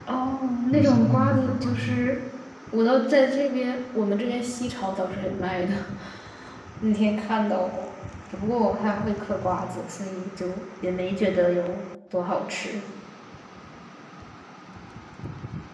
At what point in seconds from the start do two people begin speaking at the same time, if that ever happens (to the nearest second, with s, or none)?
1 s